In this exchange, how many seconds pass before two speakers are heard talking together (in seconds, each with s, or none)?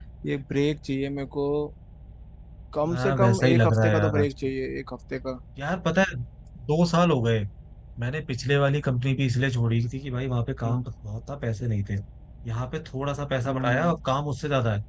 2.9 s